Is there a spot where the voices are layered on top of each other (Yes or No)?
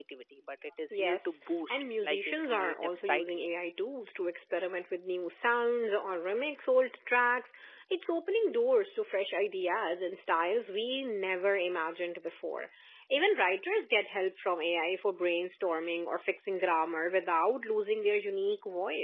Yes